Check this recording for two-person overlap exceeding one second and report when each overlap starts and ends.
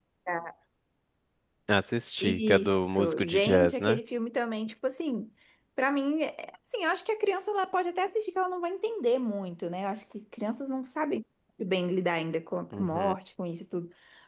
2.2-4.0

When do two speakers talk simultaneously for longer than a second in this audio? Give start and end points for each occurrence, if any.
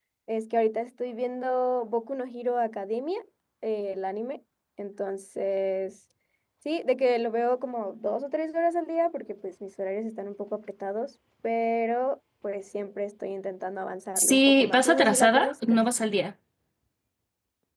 14.2-15.8

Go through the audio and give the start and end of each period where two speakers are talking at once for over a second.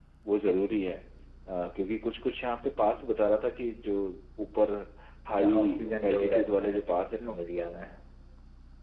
6.0-7.4

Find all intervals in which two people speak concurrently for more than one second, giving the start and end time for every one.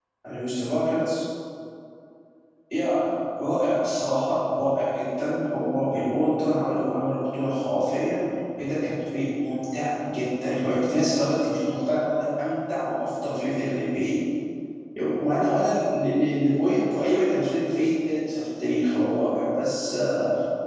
none

